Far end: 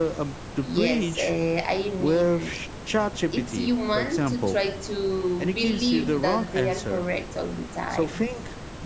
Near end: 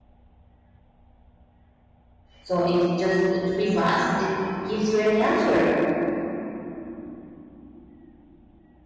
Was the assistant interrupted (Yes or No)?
Yes